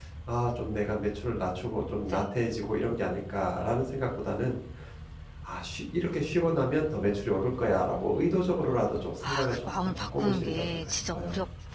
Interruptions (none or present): present